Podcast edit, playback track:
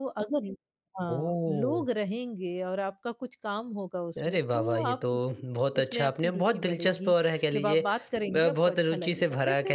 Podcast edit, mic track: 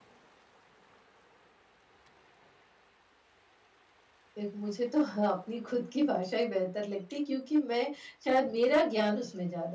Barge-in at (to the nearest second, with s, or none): 4 s